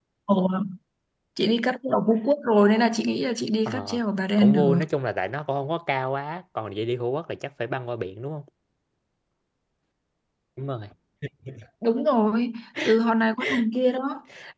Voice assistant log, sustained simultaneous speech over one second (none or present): none